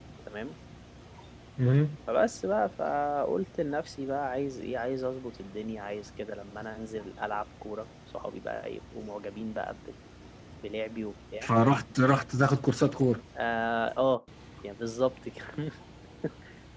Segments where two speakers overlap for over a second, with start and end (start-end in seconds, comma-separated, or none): none